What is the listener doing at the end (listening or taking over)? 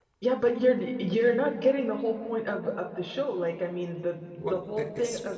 listening